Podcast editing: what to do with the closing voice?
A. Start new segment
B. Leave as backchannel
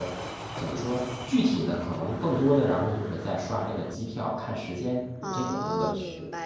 A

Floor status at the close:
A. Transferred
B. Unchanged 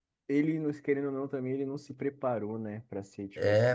A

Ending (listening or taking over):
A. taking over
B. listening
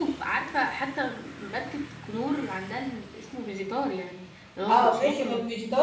A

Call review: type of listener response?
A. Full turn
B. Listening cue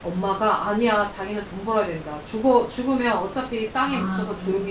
B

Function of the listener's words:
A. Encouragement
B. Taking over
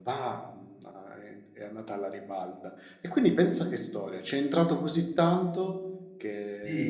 B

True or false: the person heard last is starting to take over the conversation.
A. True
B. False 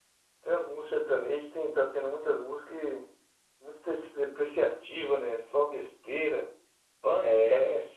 B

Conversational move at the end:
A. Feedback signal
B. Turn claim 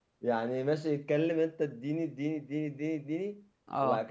A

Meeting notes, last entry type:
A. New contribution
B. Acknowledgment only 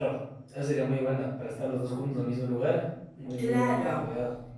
A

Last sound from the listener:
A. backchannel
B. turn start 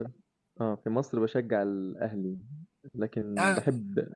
A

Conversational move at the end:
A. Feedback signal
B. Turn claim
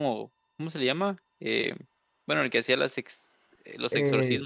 B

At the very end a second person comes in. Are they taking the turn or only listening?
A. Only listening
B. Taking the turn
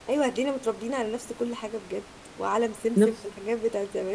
A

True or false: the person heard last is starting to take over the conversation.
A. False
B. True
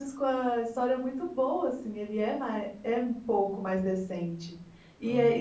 A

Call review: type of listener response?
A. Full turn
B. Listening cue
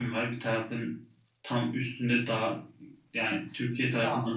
B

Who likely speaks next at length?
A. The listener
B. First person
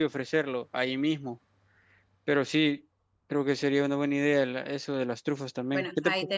A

